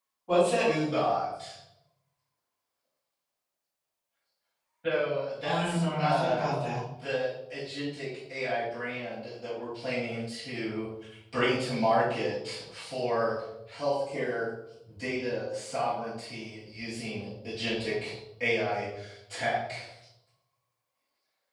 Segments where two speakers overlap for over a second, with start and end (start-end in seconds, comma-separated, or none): 5.4-6.6